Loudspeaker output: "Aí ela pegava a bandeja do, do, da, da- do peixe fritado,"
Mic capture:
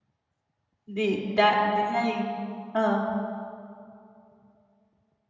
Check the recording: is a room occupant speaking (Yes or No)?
Yes